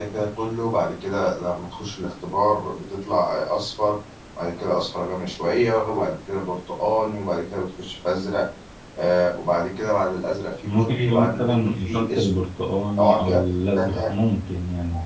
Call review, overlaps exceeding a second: present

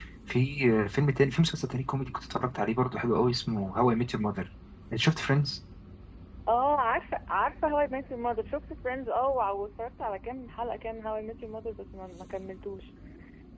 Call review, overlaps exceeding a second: none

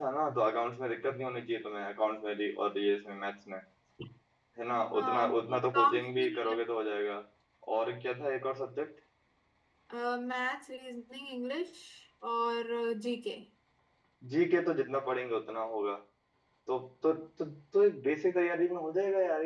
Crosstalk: present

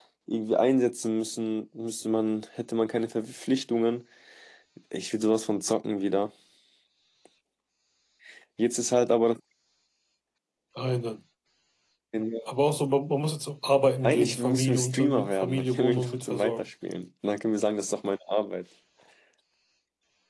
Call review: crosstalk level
present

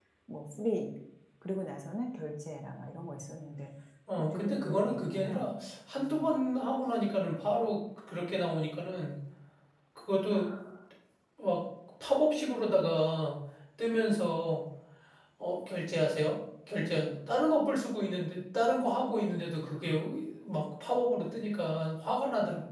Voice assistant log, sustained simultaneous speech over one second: present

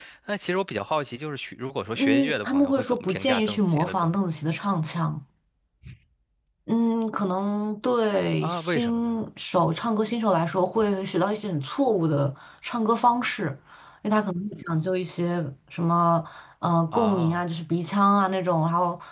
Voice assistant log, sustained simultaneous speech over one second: present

